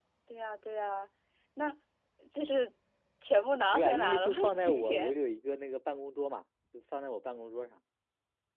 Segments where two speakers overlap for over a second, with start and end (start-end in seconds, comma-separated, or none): 3.7-5.1